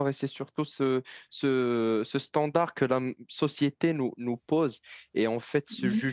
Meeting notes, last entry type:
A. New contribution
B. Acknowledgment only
B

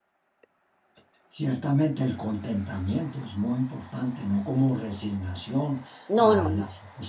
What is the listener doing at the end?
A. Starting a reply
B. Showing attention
B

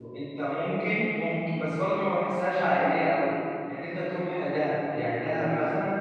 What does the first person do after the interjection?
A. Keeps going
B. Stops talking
A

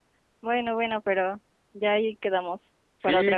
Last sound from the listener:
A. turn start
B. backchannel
A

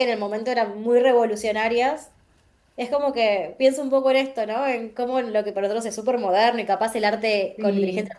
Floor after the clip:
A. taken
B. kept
B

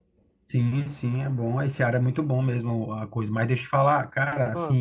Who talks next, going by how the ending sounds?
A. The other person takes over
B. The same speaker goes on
B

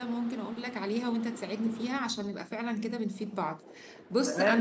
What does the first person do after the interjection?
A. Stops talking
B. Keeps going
A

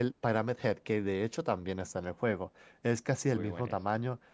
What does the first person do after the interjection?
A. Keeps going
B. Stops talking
A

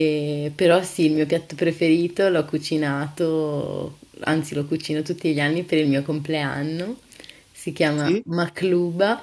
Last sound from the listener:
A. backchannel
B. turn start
A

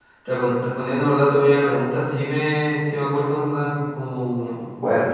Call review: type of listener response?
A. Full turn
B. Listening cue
B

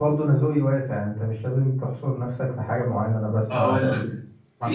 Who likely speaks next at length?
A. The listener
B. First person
A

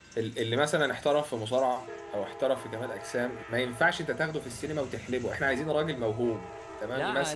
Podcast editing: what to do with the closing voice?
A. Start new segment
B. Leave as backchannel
A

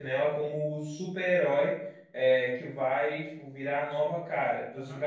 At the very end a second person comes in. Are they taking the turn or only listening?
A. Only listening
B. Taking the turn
A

